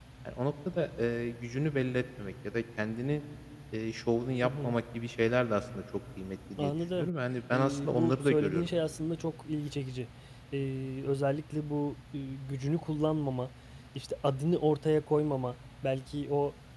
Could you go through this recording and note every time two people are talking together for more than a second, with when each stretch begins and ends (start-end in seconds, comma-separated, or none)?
7.5-8.7